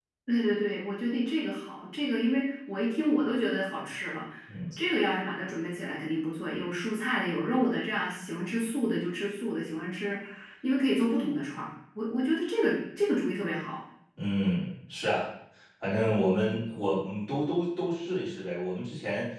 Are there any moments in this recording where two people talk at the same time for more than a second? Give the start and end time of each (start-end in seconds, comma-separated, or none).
none